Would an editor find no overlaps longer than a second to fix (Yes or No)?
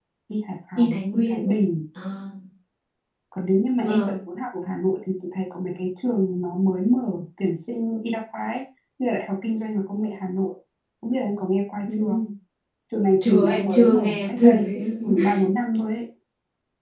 No